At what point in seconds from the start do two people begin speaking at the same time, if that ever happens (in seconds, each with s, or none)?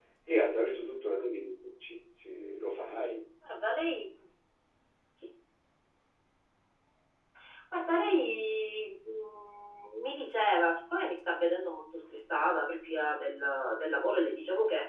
none